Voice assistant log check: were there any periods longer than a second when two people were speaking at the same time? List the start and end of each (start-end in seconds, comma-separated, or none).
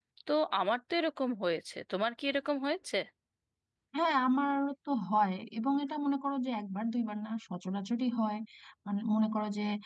none